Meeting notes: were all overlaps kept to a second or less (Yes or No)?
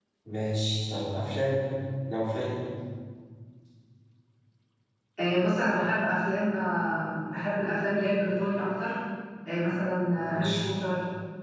Yes